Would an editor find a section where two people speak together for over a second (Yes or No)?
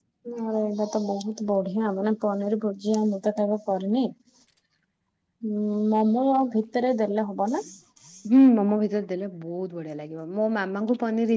No